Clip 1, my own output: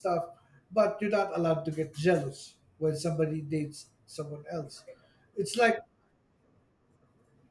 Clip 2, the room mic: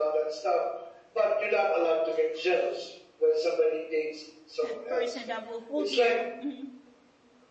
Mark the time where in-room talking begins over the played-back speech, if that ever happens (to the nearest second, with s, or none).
5 s